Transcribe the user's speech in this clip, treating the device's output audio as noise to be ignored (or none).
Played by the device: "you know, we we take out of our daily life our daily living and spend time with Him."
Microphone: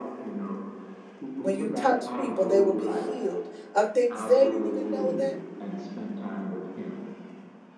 When you touch people, they will be healed of things they didn't even know that